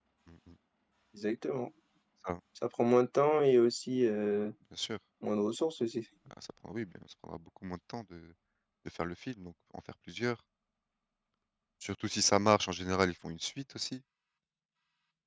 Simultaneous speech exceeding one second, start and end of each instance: none

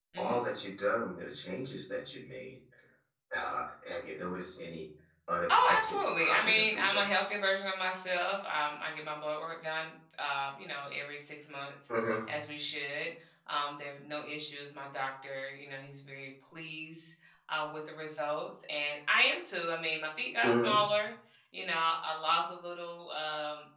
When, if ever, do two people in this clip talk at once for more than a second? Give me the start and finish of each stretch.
5.5-7.4

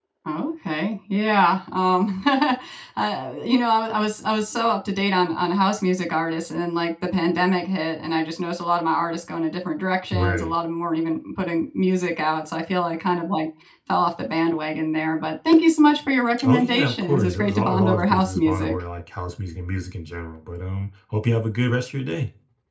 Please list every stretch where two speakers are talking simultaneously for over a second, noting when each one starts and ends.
16.4-18.8

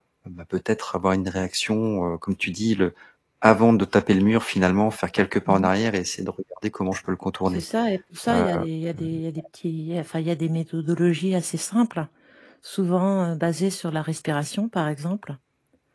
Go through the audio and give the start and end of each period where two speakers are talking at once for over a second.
none

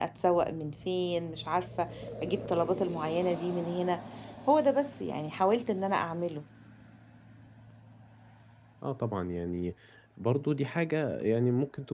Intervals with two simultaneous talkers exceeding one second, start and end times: none

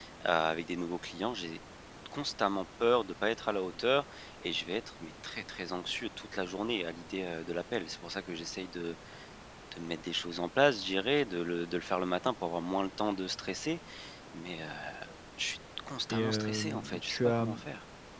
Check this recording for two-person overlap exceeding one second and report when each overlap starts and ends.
16.1-17.4

